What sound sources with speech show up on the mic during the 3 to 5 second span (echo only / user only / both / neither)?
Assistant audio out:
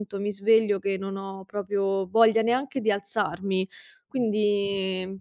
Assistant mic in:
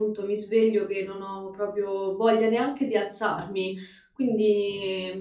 echo only